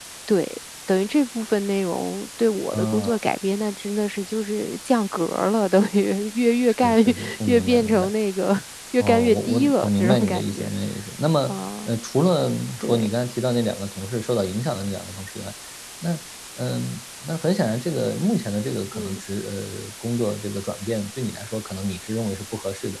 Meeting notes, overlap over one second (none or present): present